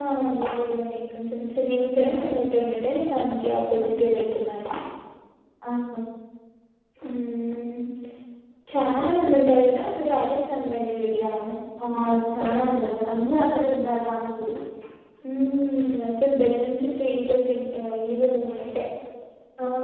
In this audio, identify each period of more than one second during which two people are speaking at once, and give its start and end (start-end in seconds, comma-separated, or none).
none